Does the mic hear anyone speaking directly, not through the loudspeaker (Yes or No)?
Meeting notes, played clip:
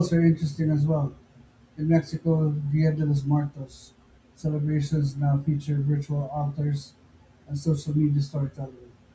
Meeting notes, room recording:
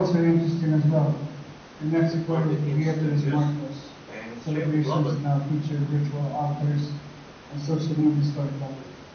Yes